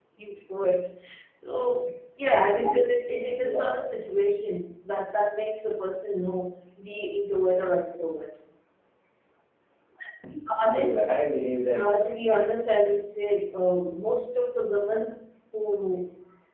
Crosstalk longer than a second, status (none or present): none